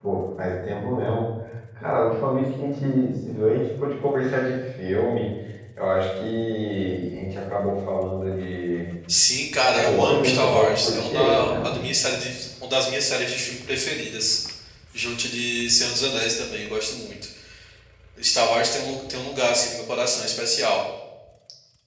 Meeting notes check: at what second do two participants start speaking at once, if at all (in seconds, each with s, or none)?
9.7 s